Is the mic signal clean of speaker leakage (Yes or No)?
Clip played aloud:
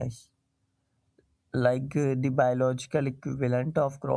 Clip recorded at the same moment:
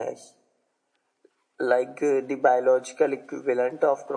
No